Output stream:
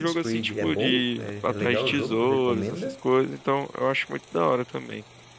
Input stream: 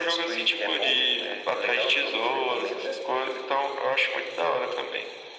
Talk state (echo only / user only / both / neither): echo only